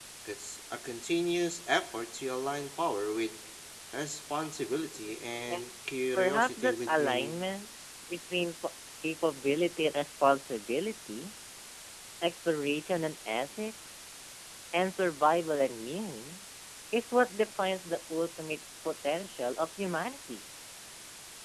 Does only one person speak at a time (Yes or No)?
No